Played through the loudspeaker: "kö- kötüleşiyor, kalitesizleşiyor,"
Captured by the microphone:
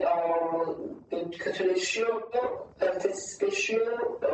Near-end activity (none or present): none